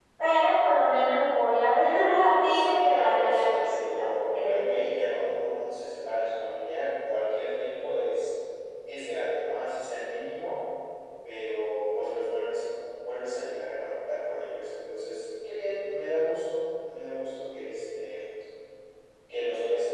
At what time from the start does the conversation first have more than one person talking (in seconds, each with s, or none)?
2.5 s